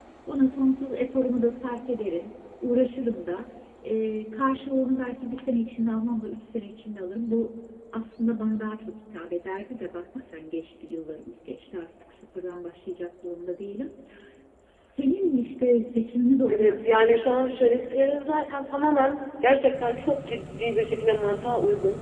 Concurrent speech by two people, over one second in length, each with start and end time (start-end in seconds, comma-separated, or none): 16.5-18.2